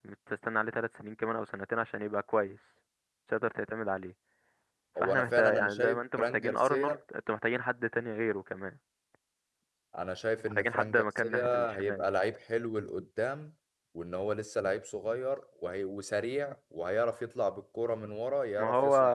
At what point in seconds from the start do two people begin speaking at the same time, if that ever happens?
5 s

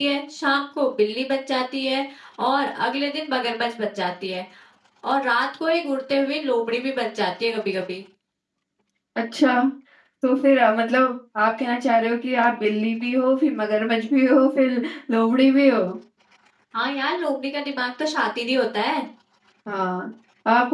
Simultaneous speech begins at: none

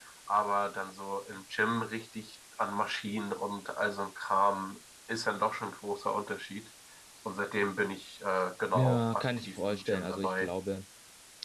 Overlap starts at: 9 s

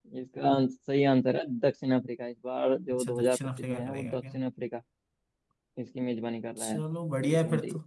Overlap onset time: 3 s

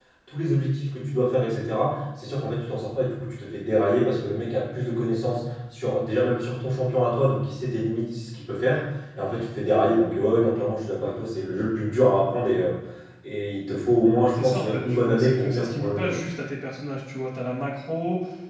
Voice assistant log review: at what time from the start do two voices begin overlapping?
14 s

